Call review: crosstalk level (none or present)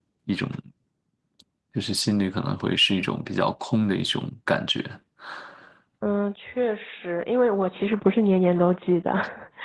none